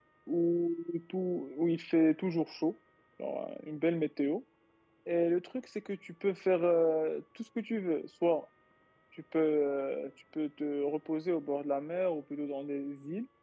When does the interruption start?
none

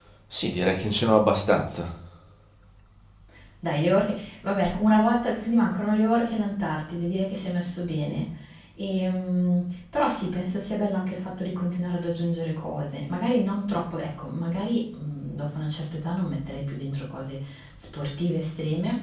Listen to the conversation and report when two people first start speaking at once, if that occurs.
none

